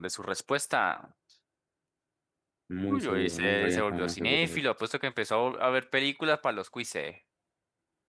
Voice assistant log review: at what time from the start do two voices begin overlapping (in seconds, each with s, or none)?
2.9 s